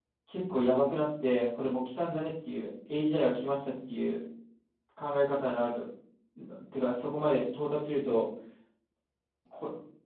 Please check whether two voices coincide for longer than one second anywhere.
No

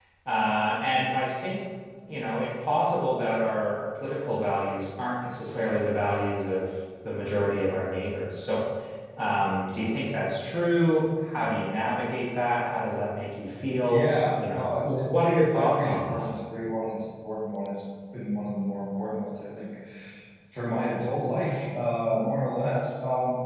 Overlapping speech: Yes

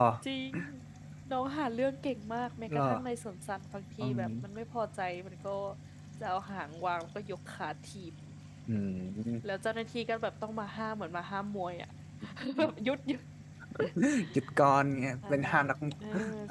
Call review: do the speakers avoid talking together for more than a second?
Yes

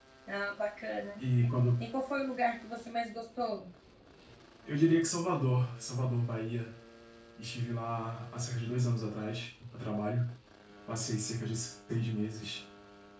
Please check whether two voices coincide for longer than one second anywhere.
No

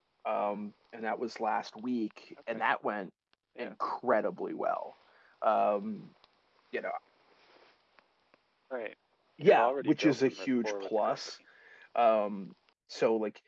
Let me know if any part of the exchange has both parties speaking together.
Yes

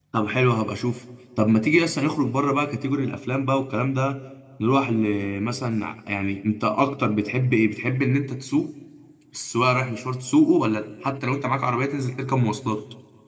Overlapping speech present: No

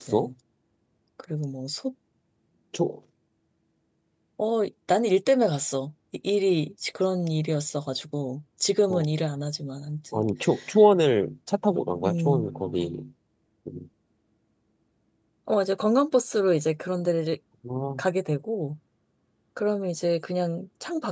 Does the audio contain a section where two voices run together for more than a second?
No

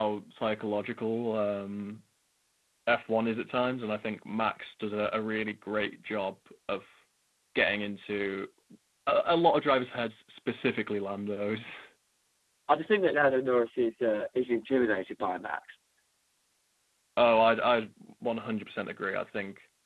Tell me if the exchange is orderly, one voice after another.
Yes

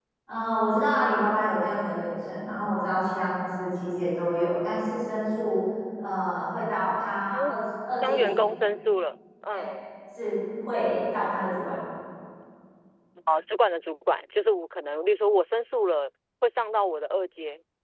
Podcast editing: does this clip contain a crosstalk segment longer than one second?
No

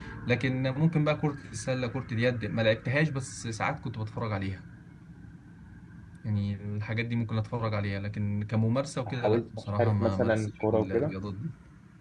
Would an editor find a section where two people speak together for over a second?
Yes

